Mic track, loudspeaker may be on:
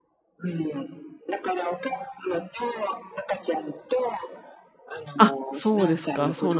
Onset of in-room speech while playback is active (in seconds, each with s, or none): 5.2 s